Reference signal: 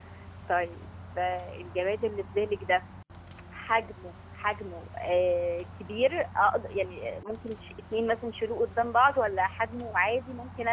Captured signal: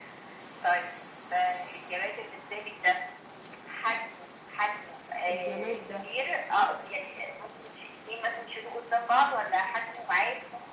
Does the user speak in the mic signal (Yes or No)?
Yes